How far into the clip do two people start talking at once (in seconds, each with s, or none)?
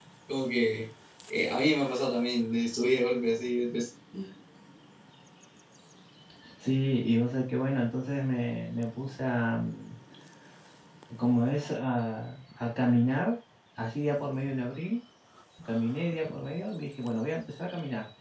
none